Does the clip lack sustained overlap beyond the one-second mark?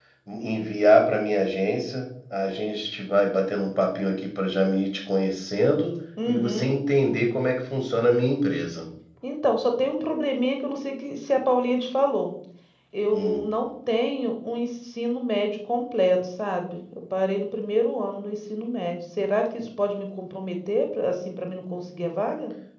Yes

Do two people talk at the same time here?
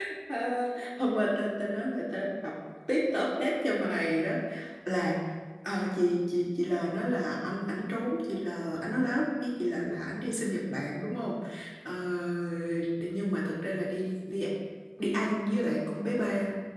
No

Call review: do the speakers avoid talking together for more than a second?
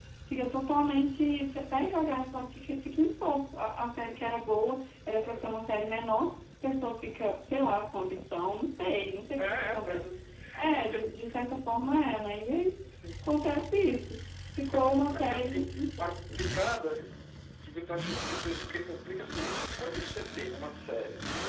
No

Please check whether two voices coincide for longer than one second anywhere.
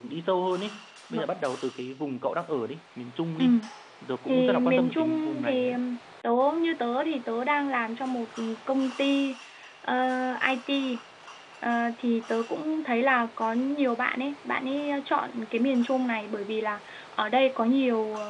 Yes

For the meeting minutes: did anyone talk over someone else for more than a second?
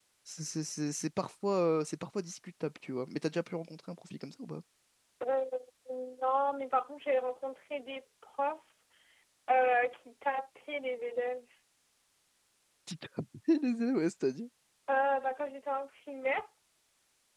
No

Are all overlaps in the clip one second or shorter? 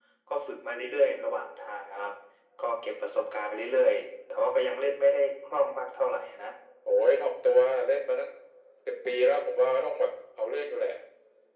Yes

